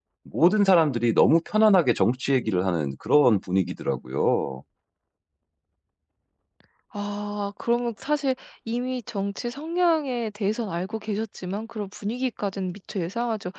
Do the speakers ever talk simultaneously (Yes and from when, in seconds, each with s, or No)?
No